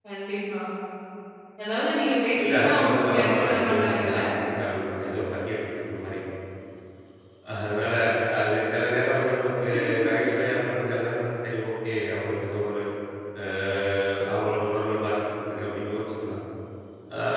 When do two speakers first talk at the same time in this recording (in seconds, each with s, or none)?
2.4 s